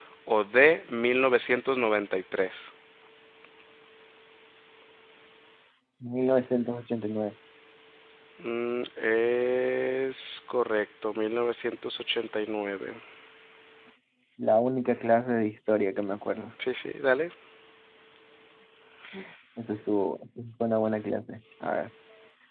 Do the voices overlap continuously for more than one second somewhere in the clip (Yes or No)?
No